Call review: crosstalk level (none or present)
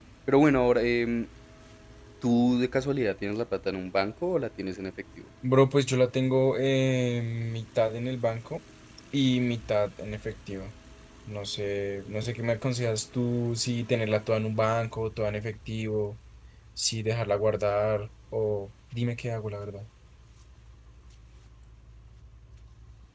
none